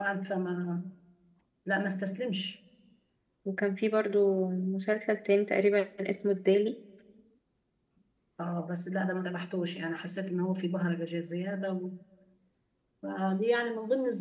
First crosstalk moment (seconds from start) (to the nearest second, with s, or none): none